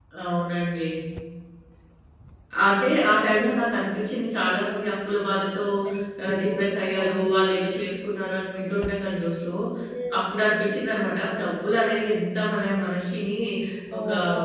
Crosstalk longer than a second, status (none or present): none